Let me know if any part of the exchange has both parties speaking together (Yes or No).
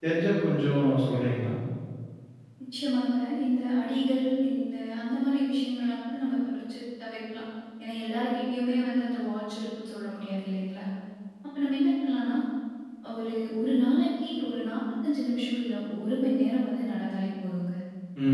No